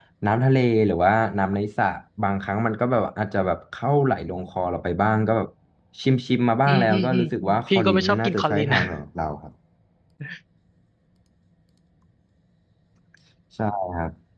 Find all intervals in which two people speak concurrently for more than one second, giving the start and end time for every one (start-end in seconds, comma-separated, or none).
6.7-8.8